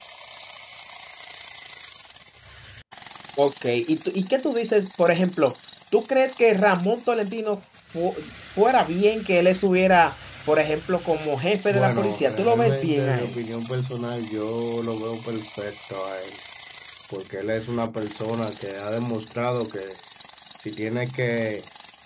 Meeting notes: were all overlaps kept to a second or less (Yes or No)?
No